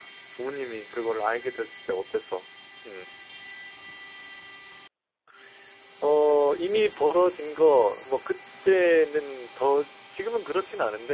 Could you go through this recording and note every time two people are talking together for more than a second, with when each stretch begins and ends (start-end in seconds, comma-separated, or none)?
none